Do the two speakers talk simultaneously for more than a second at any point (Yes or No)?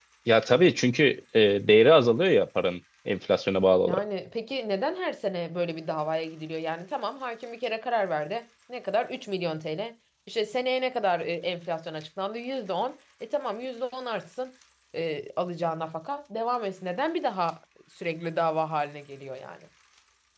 No